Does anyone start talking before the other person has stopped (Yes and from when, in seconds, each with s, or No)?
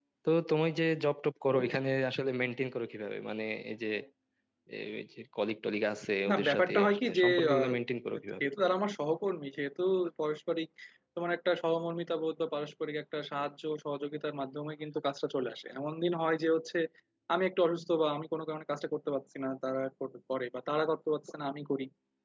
Yes, from 6.3 s